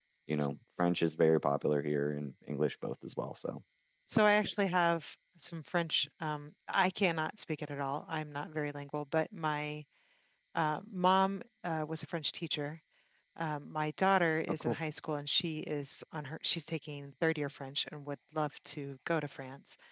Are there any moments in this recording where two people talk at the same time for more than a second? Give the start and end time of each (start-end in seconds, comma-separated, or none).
none